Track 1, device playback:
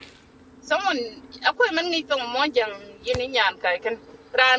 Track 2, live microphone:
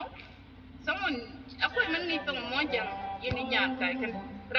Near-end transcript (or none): and a bomb noir, nor a woman bomb,